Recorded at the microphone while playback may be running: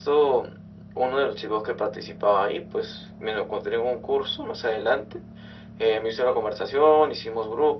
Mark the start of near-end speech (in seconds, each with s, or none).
none